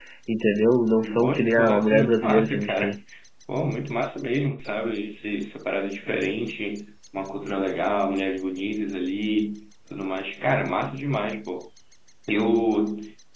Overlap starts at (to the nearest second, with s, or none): 1 s